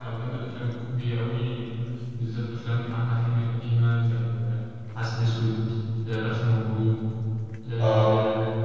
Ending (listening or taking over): listening